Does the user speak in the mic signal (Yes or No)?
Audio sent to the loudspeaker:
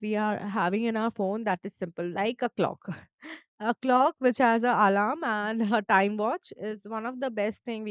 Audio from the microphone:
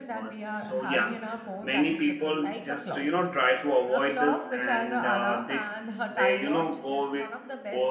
Yes